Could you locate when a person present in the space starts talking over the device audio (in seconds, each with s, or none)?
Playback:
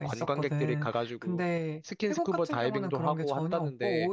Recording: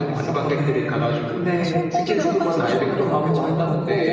1.5 s